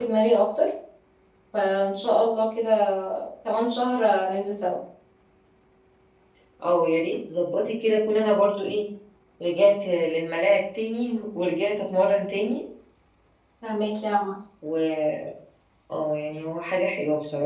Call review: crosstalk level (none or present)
none